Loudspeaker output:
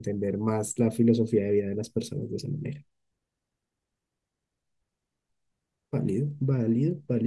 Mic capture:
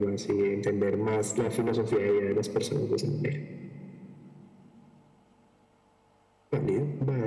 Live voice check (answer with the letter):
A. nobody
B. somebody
A